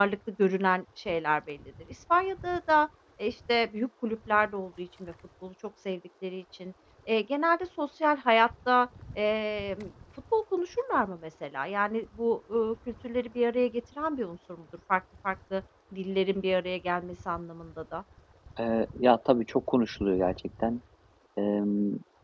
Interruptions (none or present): none